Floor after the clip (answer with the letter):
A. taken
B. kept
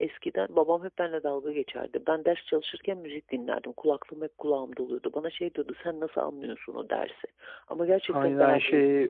A